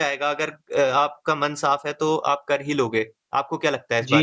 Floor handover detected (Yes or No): Yes